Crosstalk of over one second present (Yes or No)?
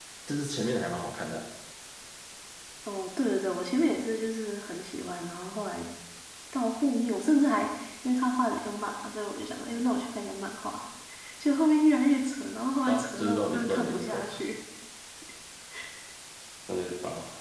Yes